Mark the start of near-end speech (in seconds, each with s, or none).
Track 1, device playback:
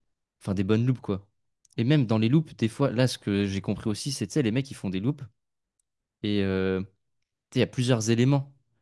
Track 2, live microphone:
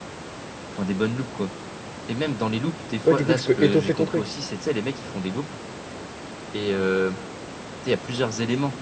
3.0 s